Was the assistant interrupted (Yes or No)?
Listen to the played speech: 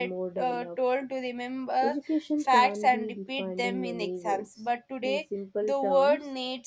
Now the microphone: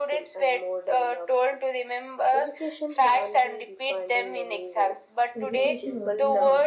Yes